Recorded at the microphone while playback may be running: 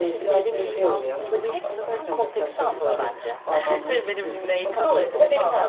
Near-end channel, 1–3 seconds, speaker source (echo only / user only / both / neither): both